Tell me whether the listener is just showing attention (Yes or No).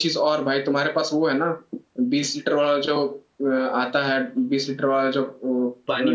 Yes